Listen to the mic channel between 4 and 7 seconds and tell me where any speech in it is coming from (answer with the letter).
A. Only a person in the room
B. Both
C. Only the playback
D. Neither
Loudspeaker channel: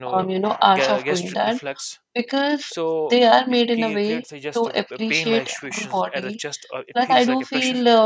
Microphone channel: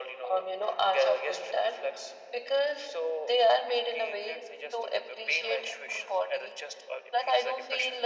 C